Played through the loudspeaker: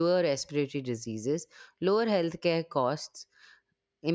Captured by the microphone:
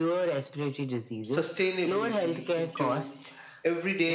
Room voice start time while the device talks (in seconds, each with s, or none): 1.2 s